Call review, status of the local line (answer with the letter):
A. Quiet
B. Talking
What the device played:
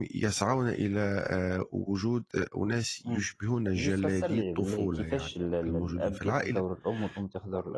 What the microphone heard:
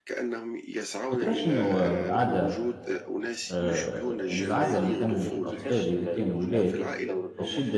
B